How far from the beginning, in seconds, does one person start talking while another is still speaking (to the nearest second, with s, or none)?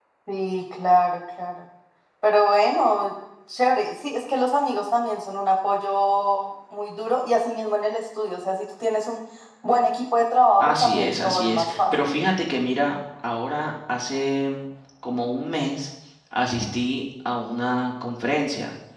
11 s